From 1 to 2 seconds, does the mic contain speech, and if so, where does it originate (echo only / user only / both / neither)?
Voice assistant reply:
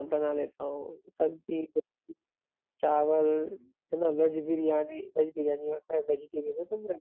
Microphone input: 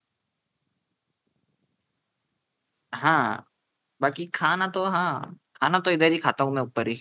neither